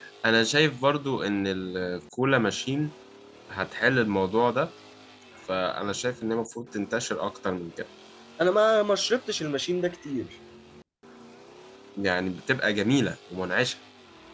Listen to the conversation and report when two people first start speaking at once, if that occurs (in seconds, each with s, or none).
none